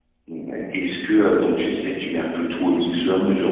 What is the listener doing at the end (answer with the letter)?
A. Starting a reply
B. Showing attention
B